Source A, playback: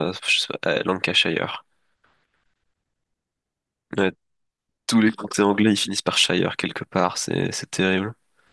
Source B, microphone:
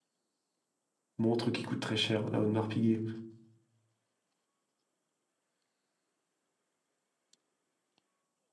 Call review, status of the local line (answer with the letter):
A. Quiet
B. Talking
B